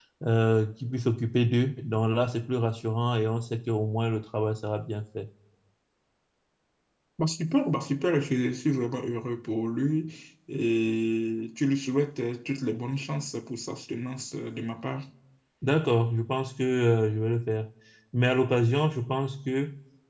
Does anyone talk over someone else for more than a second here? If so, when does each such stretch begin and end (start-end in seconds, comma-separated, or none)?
none